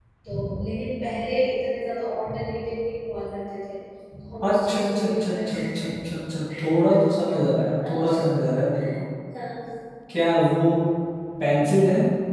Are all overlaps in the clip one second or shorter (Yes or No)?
No